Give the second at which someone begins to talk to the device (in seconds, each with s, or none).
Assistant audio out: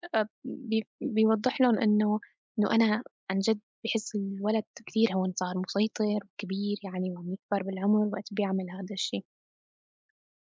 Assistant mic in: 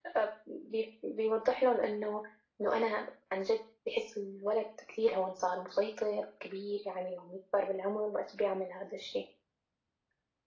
none